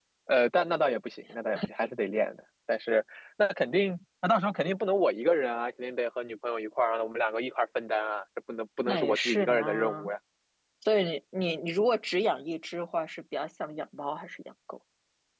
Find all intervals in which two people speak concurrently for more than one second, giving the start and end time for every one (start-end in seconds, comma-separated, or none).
8.8-10.1